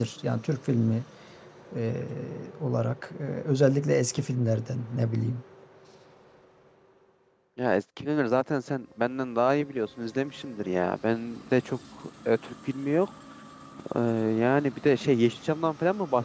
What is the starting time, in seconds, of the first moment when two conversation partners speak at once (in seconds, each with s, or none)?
none